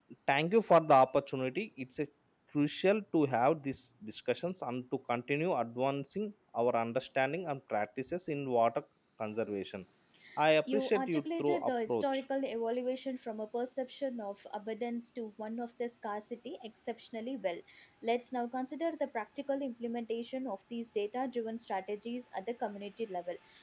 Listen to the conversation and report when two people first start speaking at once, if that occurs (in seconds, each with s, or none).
10.7 s